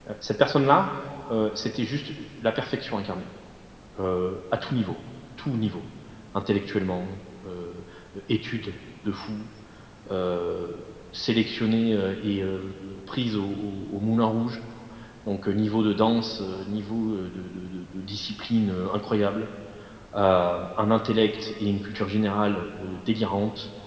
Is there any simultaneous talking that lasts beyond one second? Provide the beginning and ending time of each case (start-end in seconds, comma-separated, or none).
none